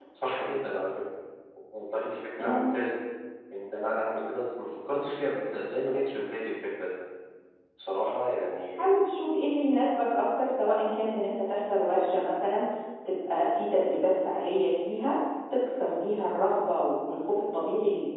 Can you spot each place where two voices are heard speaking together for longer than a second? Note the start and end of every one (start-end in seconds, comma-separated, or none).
none